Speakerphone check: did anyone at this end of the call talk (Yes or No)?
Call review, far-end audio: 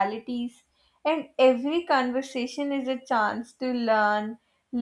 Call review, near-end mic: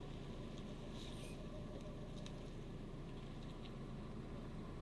No